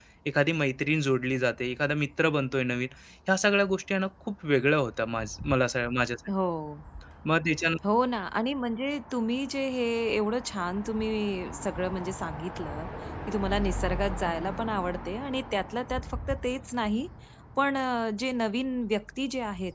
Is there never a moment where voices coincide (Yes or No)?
Yes